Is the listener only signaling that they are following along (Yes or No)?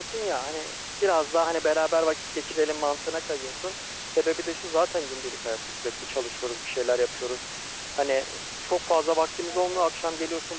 Yes